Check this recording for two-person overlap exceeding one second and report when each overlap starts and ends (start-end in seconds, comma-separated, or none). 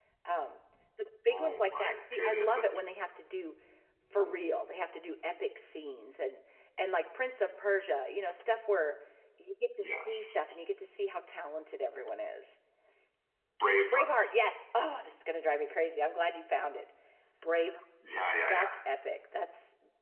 1.3-2.6